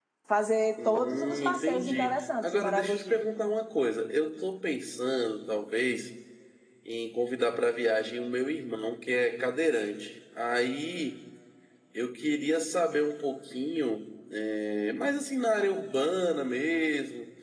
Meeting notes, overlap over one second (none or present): present